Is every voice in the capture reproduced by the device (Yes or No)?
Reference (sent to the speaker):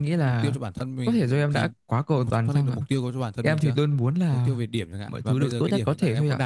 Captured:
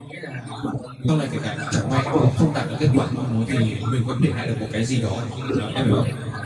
No